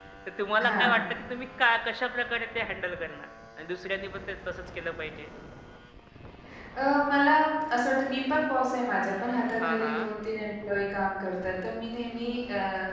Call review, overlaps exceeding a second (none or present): none